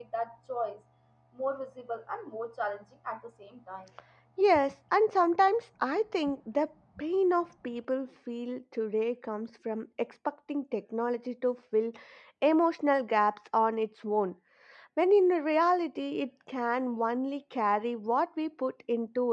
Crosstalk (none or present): none